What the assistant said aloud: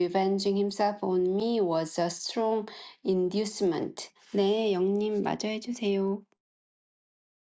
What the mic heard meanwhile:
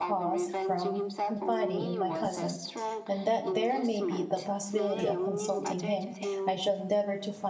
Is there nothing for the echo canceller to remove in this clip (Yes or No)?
No